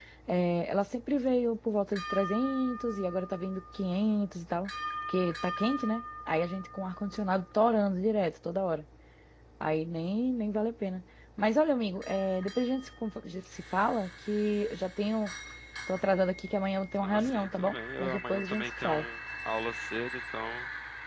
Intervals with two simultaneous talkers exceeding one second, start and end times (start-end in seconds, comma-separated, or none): 17.0-19.1